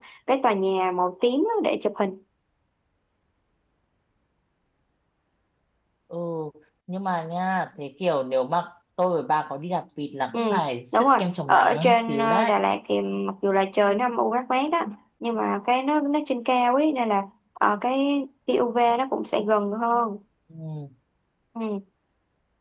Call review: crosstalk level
present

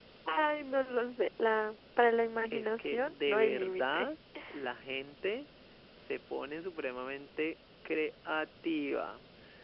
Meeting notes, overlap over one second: present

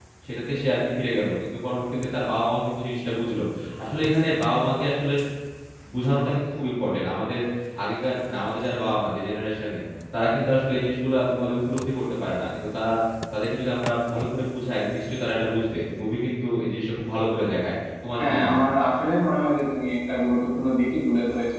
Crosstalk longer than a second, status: none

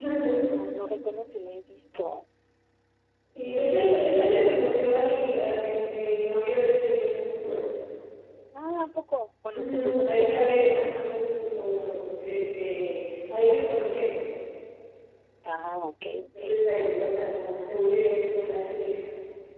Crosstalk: present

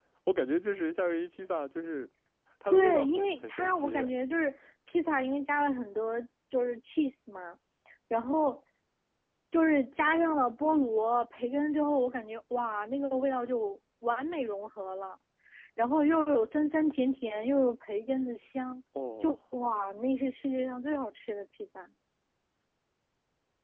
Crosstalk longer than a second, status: present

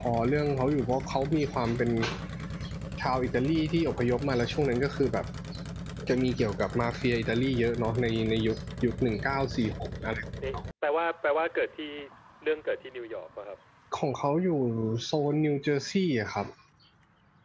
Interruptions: none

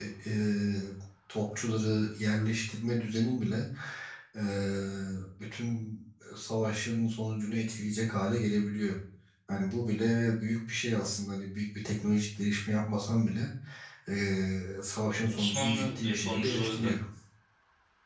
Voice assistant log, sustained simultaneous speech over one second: present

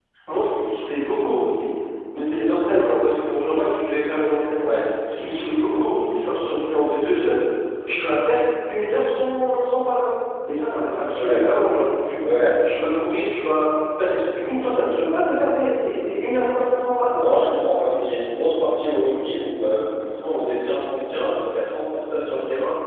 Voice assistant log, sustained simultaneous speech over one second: none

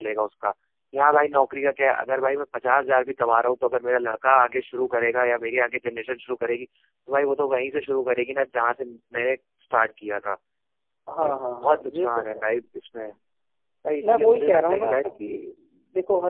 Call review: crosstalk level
present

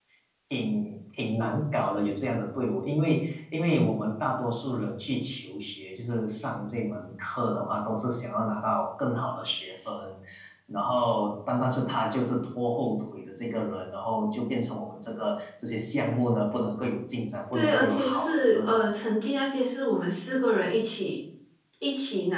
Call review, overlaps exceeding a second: present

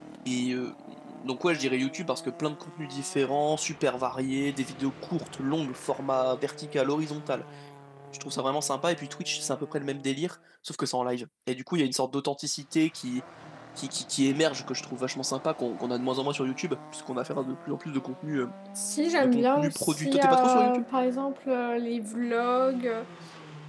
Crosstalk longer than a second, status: present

